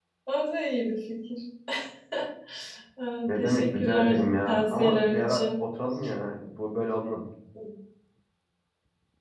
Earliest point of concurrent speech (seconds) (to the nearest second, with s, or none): 3 s